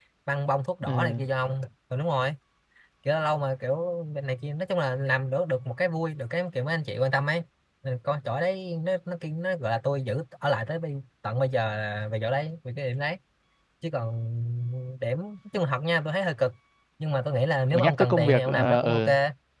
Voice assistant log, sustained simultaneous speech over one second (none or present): present